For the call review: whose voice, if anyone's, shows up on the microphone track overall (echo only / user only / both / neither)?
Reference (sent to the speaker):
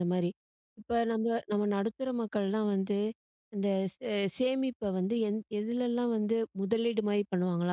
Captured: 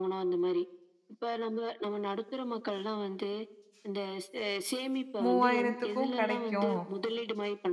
both